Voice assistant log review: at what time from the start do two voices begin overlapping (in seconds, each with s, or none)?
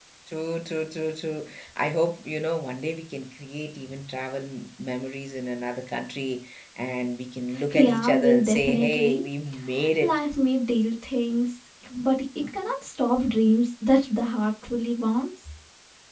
7.7 s